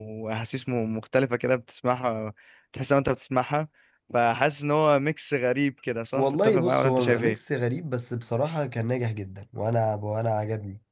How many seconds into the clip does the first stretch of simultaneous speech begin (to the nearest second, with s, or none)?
6 s